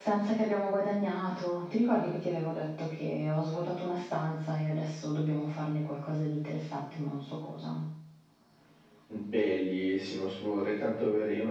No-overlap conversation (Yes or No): Yes